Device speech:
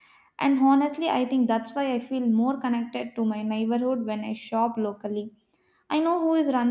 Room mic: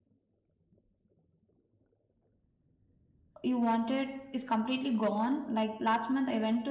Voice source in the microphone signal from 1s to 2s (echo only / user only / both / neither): neither